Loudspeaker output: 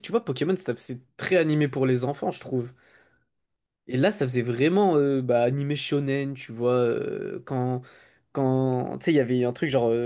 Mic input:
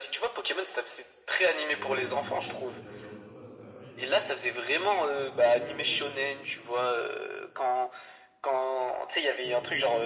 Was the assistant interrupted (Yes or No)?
Yes